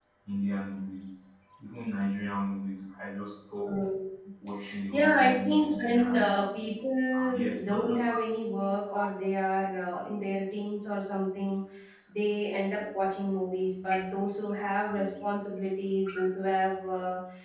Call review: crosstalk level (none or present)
present